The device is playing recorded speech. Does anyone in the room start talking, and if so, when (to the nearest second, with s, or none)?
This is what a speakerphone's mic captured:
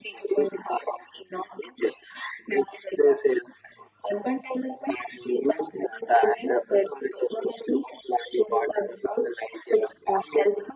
none